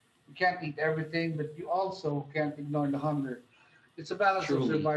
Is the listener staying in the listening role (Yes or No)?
No